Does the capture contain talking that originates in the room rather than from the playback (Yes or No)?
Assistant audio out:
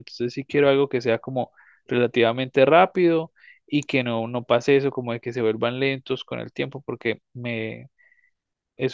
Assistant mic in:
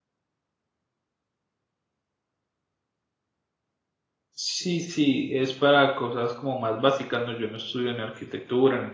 Yes